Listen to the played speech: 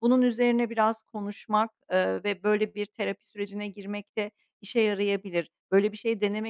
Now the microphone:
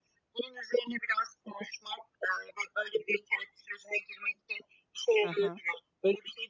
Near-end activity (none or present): present